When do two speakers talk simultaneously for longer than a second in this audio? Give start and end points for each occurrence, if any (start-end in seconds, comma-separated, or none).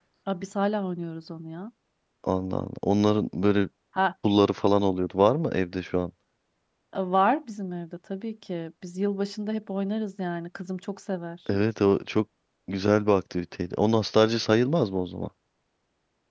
none